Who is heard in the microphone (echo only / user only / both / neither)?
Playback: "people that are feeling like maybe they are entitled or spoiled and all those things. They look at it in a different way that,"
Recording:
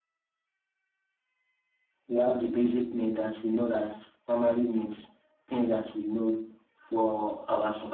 user only